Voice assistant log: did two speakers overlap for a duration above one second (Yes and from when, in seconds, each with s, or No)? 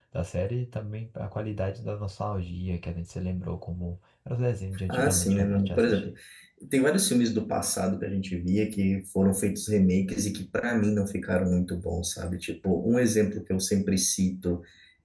Yes, from 4.9 s